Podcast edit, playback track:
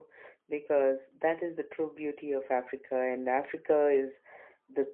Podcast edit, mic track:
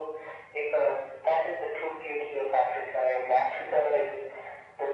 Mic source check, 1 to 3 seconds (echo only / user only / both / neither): echo only